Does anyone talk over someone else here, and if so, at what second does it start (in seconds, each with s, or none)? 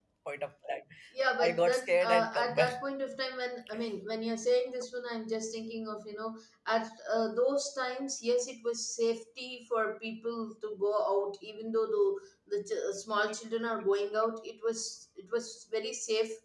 1.4 s